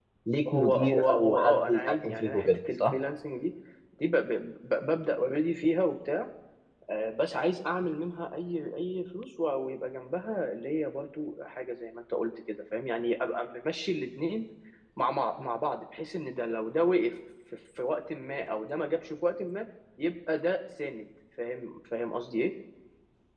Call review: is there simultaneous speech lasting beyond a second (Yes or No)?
Yes